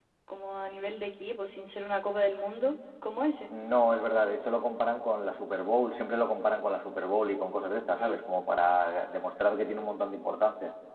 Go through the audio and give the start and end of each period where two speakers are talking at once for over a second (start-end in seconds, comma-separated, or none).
none